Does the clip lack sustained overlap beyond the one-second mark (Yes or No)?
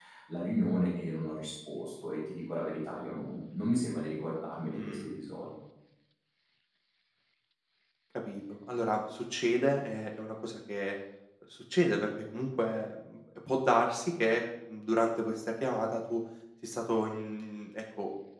Yes